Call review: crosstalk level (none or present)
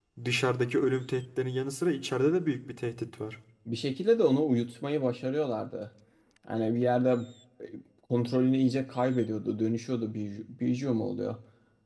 none